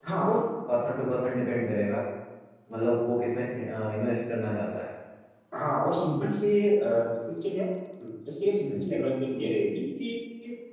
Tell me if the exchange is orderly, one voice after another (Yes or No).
Yes